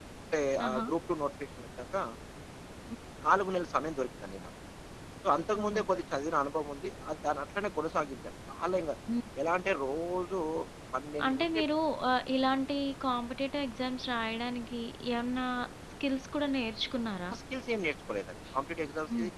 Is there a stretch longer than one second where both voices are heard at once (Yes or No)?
No